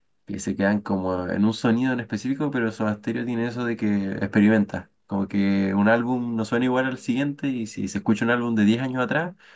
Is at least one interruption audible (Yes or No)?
No